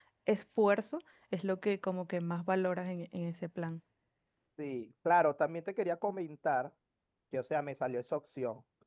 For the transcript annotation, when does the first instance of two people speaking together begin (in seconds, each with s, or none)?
none